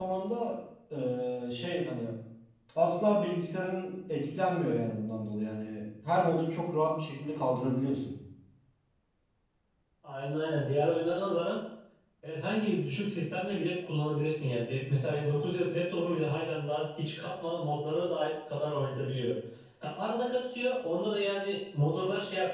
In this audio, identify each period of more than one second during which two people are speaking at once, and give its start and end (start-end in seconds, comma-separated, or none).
none